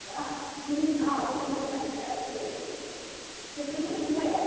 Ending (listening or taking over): listening